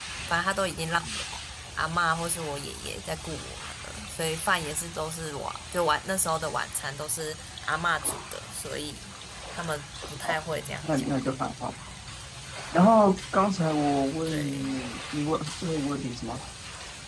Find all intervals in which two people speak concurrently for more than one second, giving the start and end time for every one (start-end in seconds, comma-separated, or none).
none